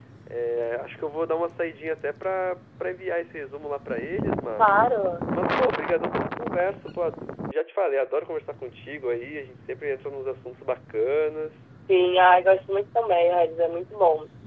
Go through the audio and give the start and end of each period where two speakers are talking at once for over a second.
none

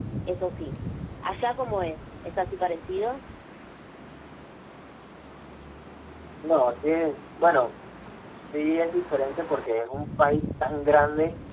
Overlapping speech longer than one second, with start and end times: none

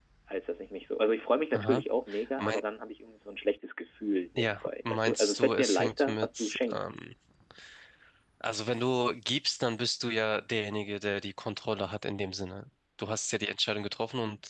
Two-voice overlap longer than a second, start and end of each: 4.4-6.8

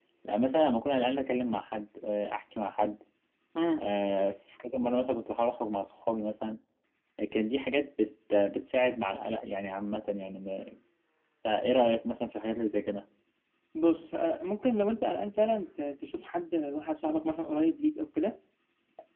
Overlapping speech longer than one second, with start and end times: none

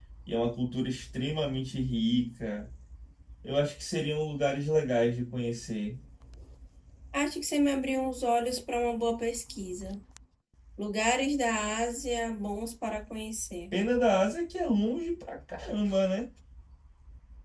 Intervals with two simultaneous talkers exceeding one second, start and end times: none

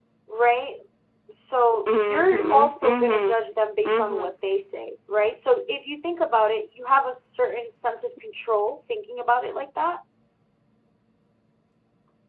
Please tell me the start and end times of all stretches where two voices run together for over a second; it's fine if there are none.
1.9-3.3

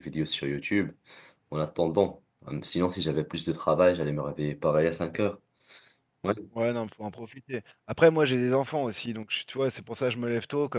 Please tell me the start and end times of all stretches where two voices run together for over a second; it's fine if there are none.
none

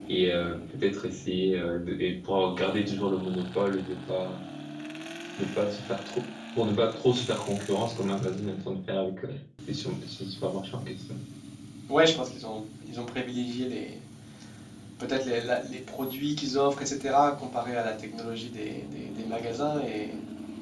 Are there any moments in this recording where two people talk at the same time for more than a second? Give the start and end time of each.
none

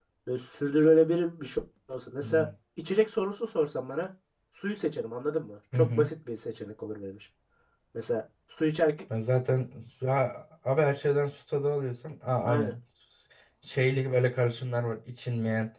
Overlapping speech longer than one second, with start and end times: none

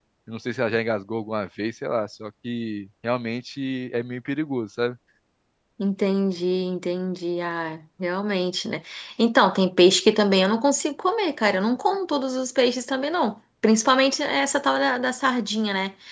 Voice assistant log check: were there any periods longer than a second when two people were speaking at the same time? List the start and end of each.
none

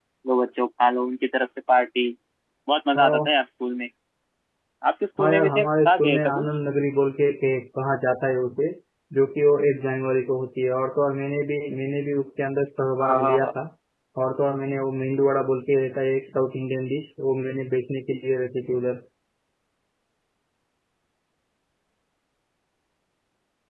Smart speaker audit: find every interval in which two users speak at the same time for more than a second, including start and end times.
5.2-6.5

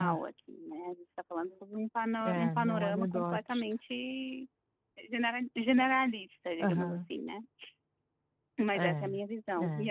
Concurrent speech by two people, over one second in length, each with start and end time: 2.2-3.6

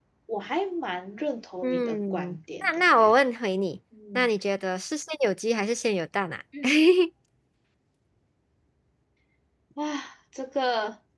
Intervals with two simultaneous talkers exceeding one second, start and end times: 1.6-3.0

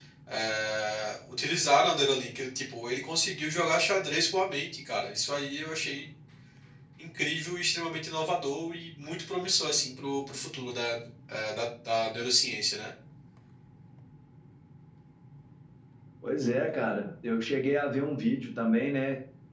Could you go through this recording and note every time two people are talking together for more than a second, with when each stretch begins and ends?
none

